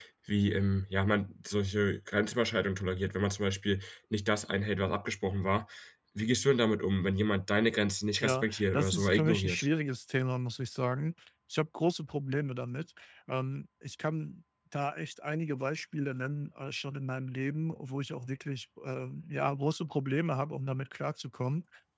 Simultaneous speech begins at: 8 s

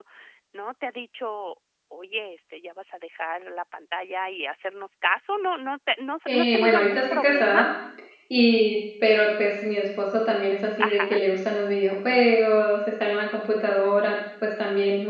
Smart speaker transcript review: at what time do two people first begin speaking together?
6 s

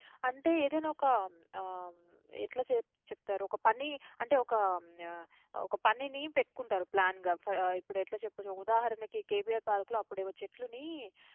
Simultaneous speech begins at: none

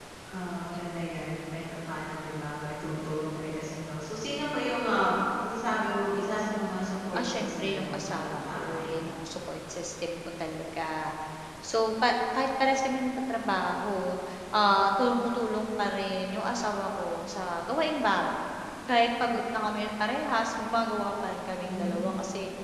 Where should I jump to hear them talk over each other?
7 s

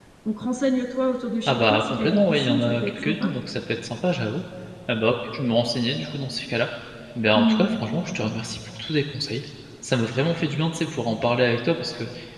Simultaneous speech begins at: 1 s

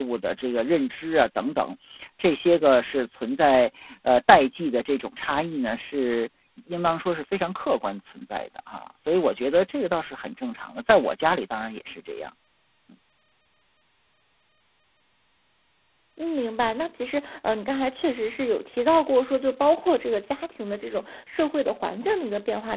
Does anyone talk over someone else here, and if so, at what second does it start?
none

